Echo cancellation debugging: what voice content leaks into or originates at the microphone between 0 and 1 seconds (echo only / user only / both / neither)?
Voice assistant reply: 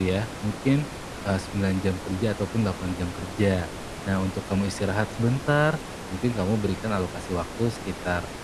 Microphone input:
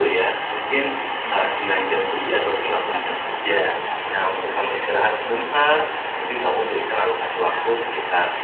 both